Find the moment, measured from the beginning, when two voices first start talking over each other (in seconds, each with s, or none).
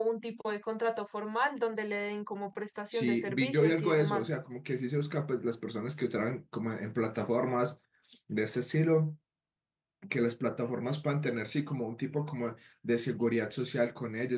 2.9 s